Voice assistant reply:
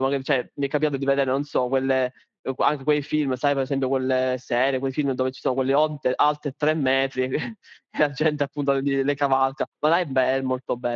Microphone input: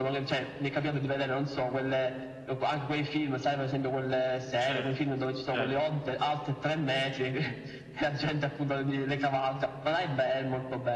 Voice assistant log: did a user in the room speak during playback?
Yes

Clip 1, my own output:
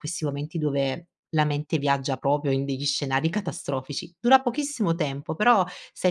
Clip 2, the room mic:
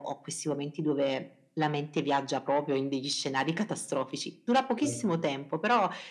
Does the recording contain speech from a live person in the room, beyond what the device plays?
Yes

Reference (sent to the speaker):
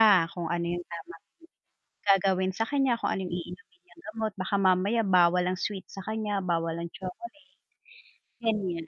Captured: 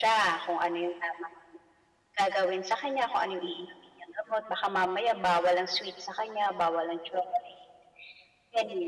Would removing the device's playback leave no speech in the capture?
Yes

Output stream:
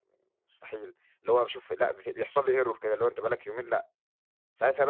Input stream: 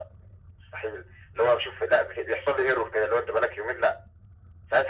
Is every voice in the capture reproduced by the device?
Yes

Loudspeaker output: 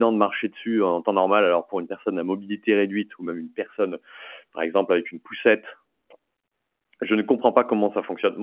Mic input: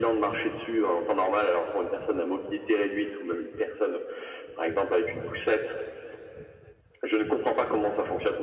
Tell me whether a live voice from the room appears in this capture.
No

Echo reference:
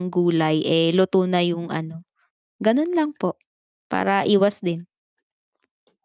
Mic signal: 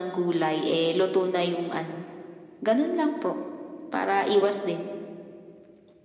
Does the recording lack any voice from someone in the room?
Yes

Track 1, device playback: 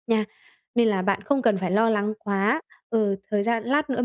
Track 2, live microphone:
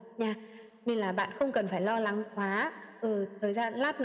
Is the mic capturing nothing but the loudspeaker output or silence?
Yes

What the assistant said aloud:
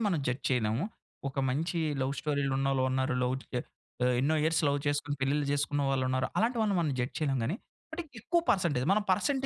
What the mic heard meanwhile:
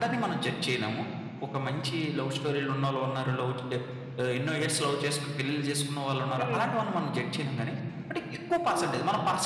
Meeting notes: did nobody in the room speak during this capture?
No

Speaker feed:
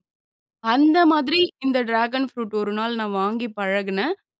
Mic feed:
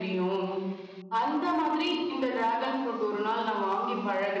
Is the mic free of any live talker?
Yes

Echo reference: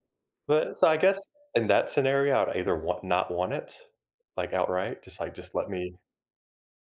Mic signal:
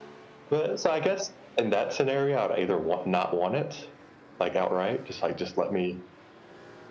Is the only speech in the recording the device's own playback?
Yes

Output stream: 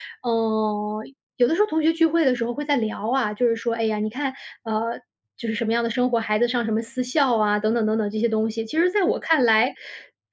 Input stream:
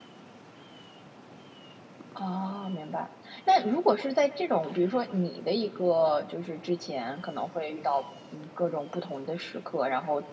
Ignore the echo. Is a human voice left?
Yes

